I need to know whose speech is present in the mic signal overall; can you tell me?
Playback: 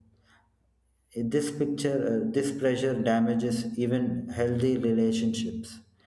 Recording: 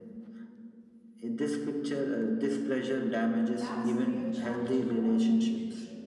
both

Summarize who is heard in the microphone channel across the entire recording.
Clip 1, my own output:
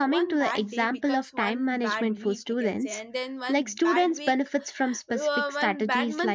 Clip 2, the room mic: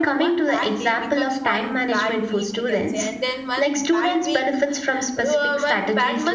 echo only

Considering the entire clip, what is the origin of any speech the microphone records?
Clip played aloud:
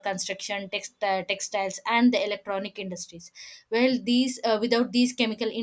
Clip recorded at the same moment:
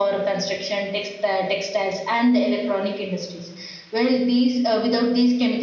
echo only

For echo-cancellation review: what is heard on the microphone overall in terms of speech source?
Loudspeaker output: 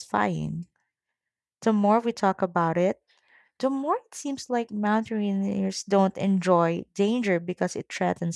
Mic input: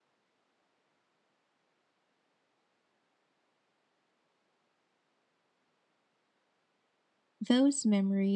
user only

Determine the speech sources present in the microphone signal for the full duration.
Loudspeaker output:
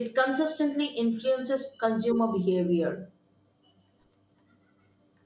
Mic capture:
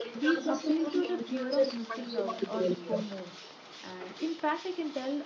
both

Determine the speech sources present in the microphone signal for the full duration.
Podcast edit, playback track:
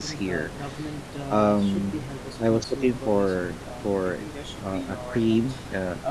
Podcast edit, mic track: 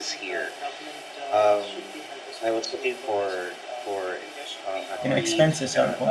both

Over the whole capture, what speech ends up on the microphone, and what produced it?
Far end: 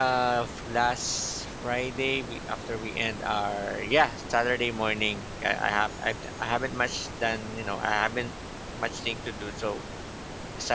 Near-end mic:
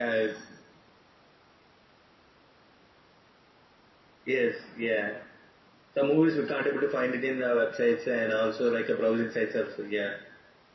user only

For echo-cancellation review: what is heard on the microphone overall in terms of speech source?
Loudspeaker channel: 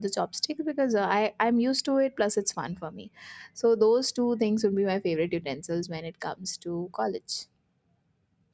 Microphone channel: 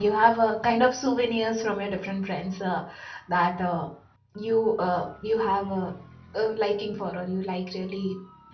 user only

